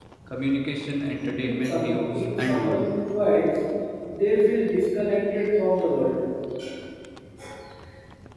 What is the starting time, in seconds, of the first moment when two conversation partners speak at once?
1 s

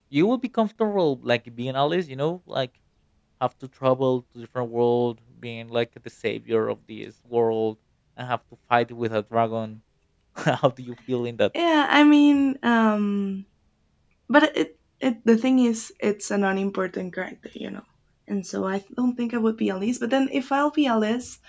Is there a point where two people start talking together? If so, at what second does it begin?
none

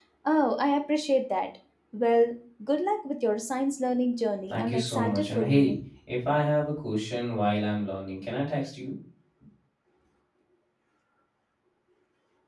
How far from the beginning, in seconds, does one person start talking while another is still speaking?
5 s

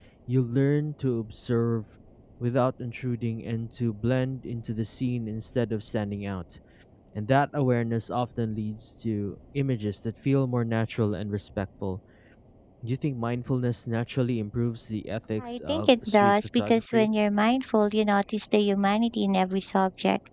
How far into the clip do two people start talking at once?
15 s

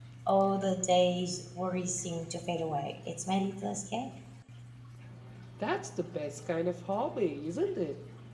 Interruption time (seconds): none

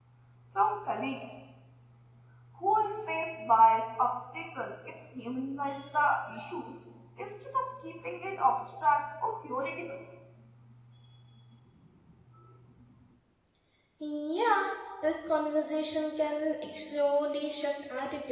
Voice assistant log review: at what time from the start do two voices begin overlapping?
none

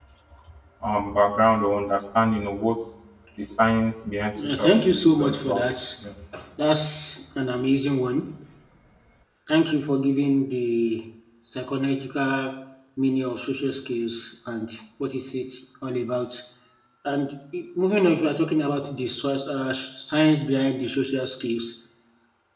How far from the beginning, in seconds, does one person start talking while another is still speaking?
4 s

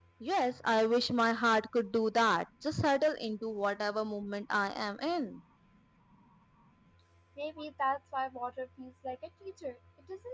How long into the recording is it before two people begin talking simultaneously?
none

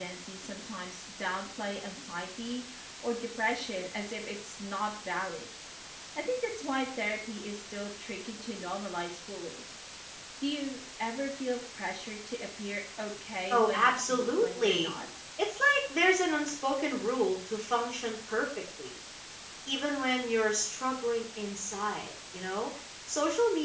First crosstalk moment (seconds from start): 14 s

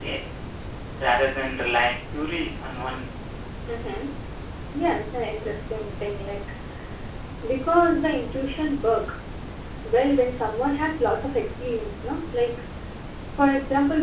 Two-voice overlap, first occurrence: none

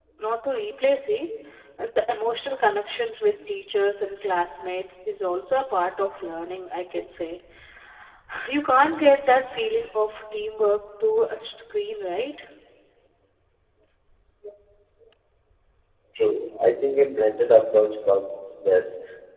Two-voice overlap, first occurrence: none

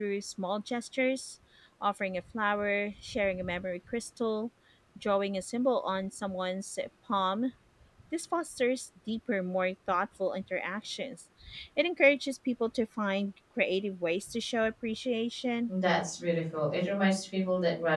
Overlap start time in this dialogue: none

